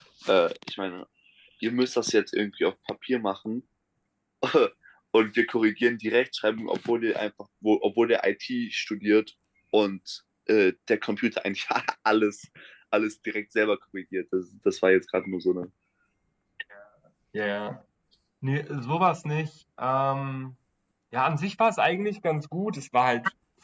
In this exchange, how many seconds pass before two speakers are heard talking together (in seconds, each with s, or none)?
none